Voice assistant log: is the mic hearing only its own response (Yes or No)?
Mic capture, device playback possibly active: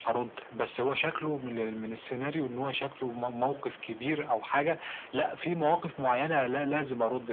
Yes